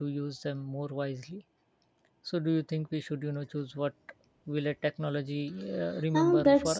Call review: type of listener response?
taking over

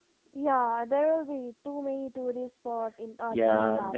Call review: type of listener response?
taking over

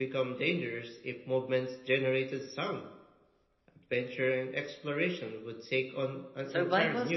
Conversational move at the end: taking over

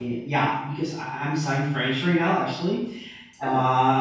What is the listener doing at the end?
listening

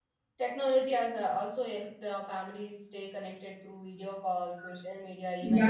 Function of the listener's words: taking over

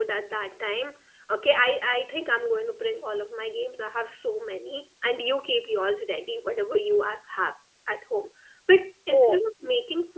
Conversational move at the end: listening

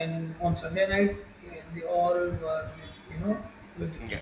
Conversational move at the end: listening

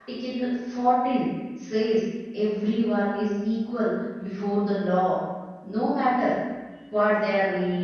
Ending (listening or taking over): listening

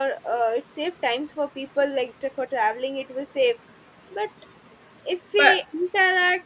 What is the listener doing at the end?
listening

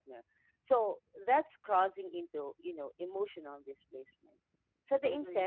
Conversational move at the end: listening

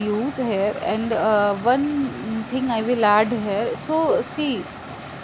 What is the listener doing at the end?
listening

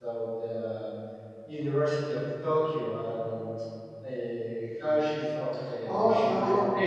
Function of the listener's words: taking over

